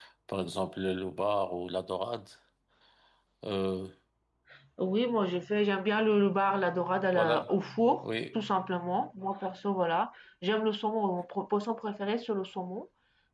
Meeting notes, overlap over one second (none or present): none